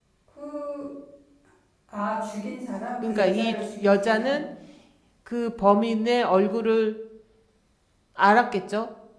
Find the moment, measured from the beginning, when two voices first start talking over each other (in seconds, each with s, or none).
3.0 s